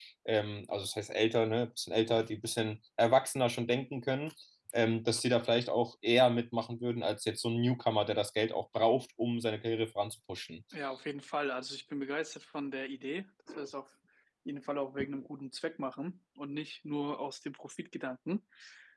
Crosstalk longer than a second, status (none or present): none